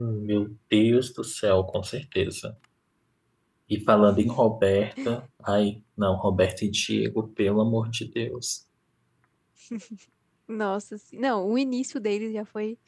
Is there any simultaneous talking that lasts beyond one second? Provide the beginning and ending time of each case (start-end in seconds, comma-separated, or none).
none